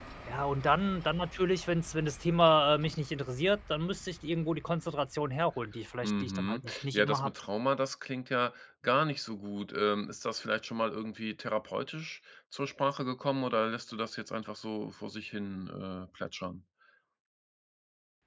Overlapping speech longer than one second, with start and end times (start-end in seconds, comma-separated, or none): 6.0-7.3